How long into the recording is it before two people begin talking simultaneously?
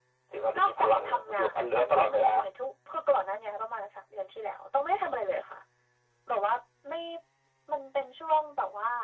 0.6 s

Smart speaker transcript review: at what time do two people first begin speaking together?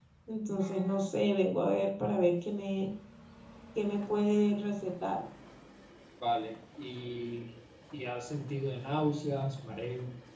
none

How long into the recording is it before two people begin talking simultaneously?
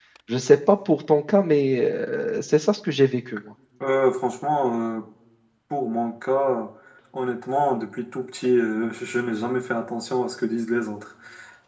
none

